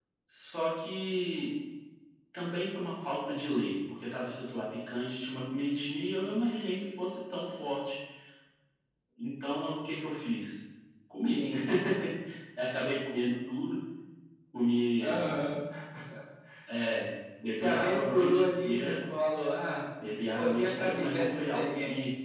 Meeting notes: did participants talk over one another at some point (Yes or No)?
Yes